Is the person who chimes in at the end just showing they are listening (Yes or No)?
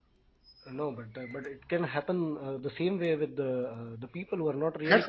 No